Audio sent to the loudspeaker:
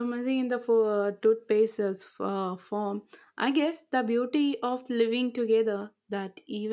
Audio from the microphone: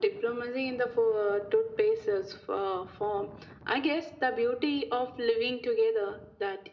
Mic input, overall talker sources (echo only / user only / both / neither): echo only